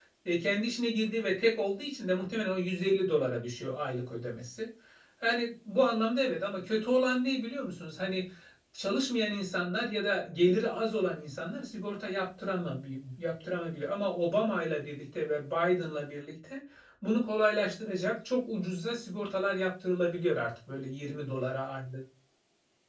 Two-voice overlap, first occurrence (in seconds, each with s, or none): none